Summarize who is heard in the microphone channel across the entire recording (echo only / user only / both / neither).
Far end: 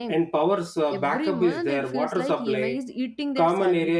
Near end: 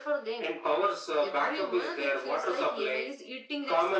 echo only